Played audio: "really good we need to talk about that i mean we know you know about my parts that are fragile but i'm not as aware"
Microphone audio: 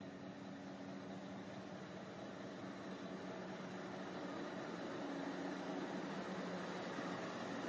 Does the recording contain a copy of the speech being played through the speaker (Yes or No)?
No